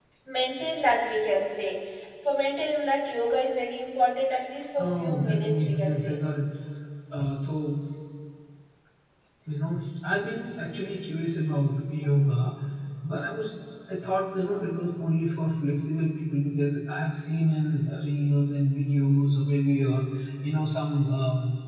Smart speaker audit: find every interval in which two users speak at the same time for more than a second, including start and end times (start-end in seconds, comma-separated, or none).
4.8-6.2